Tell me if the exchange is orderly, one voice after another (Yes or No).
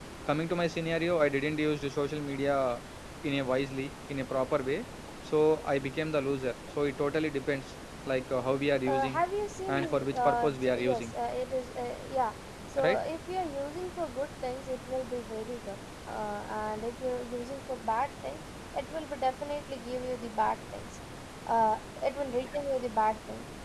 No